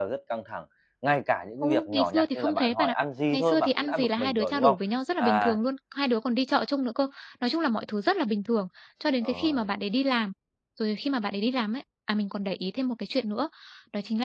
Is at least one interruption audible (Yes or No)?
Yes